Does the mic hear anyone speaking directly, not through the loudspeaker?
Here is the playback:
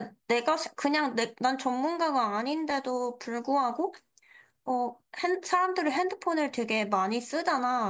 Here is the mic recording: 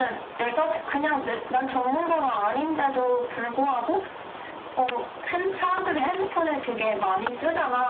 No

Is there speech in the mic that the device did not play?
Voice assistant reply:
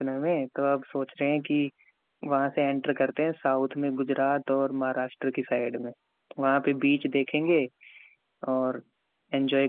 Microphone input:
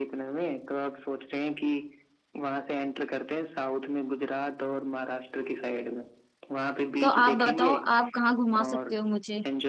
Yes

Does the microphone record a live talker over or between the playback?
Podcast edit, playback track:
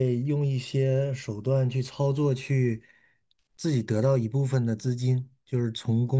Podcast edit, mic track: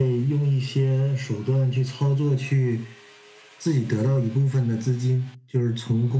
No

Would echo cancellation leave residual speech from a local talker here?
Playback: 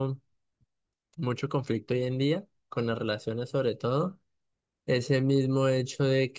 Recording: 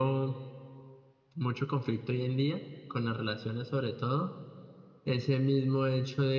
No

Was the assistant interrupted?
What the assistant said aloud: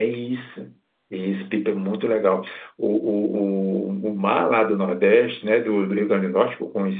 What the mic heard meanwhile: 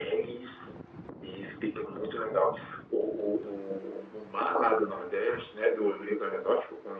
No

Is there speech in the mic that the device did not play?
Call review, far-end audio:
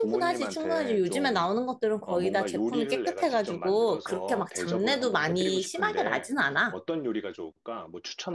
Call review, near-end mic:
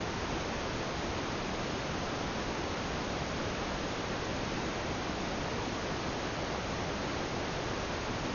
No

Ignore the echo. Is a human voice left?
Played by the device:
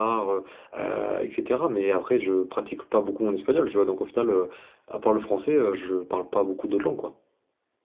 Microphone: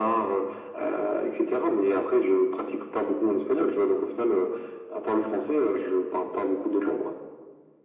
No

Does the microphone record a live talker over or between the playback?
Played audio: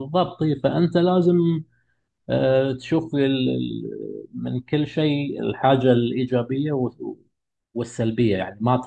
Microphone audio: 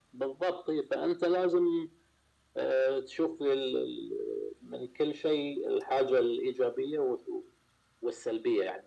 No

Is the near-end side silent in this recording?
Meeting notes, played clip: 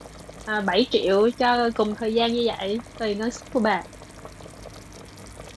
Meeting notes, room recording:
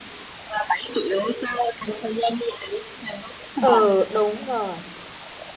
No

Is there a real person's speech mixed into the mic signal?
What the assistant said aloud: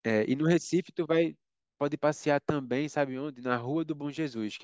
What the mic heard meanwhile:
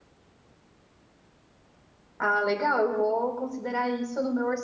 Yes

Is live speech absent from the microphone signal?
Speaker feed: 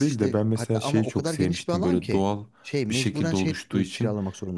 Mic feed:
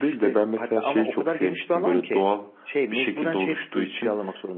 Yes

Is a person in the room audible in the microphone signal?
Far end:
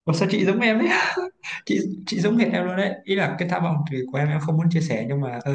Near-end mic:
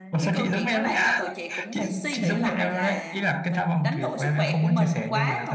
Yes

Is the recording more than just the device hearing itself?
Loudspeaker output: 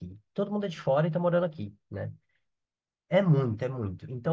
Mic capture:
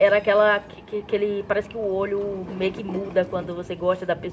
Yes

